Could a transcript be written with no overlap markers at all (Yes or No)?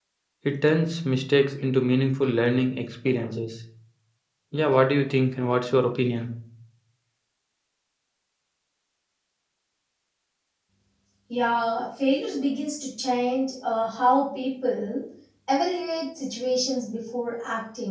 Yes